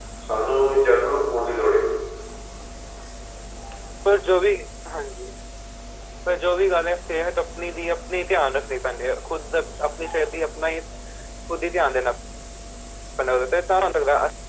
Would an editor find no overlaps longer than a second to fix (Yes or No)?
Yes